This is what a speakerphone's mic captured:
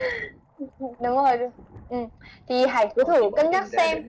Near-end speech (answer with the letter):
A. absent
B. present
B